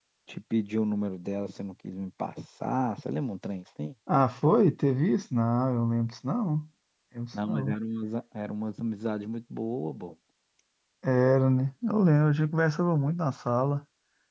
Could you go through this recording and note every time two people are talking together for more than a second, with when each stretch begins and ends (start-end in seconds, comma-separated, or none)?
none